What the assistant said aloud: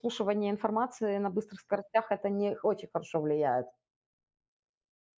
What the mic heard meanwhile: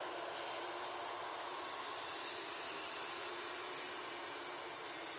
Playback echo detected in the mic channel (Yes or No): No